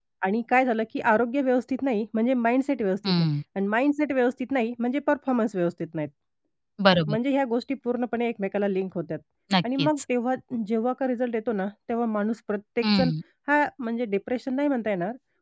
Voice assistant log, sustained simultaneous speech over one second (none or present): none